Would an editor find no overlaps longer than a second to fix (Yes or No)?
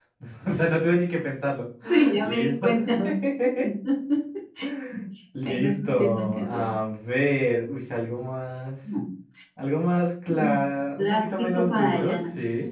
No